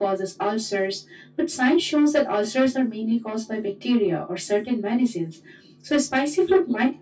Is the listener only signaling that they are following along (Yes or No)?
Yes